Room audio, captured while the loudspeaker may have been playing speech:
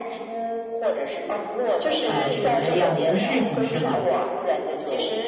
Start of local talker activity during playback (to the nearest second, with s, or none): 2 s